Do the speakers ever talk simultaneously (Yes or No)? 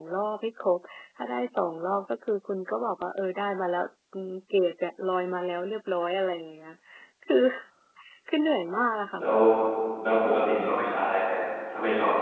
No